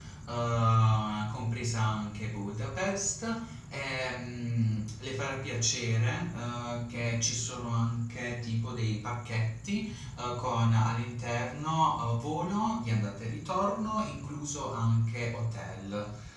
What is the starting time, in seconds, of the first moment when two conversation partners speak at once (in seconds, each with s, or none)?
none